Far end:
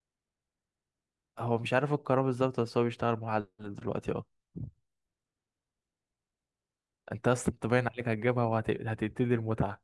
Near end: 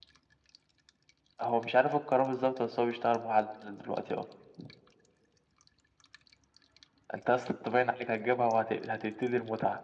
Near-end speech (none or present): none